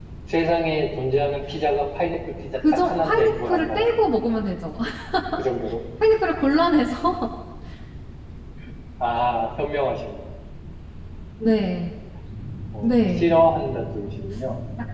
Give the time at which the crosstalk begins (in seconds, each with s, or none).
2.6 s